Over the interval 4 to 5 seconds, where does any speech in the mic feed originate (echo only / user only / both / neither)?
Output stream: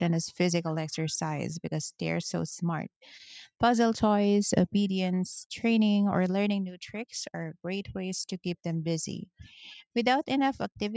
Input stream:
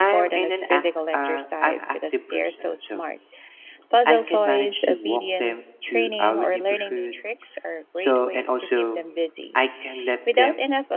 both